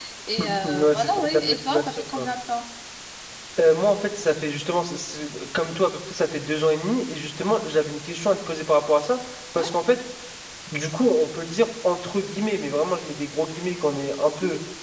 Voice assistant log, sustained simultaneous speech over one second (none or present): present